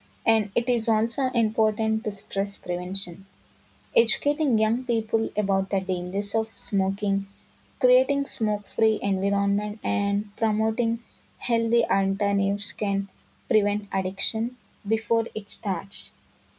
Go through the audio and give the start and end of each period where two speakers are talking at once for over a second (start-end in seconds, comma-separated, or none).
none